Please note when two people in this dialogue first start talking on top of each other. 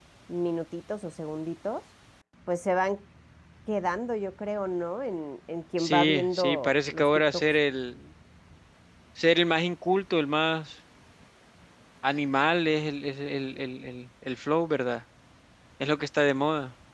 5.8 s

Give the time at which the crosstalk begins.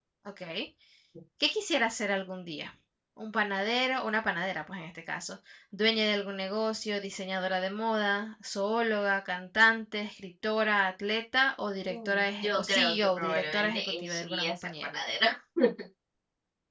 11.9 s

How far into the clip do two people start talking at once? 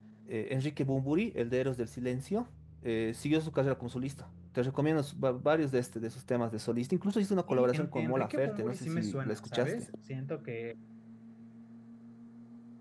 7.5 s

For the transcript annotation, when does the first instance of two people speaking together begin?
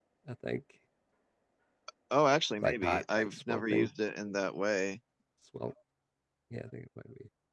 2.6 s

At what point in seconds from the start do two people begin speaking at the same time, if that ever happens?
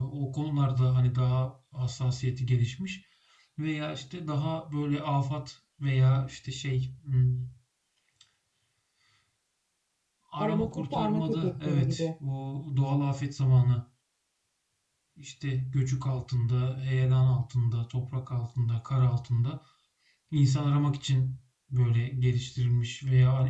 10.4 s

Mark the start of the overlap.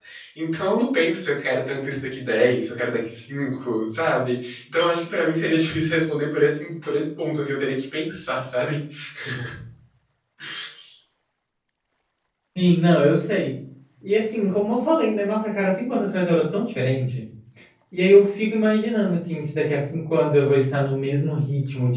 none

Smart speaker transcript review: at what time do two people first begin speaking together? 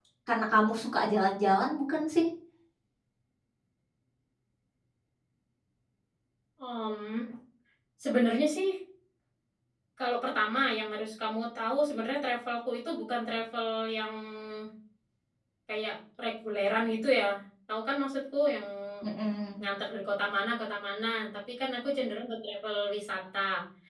none

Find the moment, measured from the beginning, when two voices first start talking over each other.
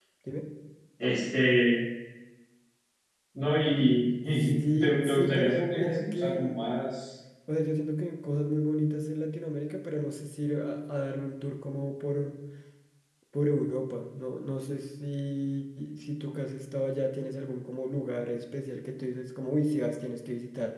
4.4 s

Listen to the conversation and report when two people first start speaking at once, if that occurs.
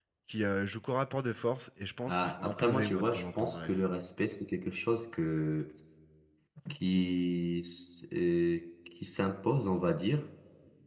2.1 s

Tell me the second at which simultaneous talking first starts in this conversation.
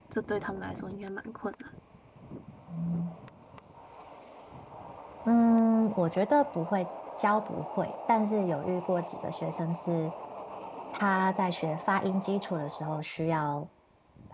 none

